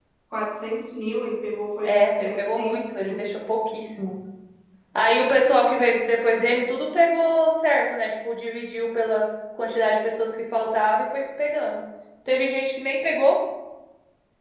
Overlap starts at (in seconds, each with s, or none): 1.8 s